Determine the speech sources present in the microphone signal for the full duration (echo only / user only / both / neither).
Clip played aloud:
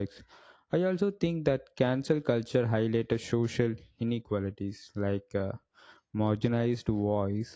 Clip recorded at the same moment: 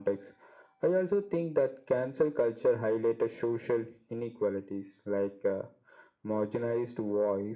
echo only